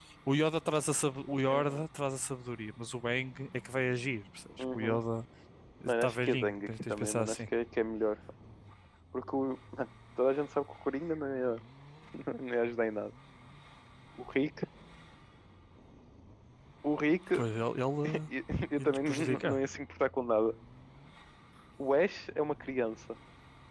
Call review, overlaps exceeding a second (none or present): present